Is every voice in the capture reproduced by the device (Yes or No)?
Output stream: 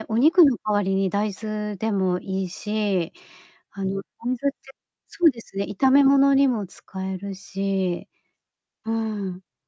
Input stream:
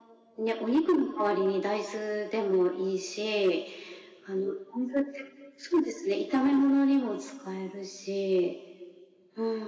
Yes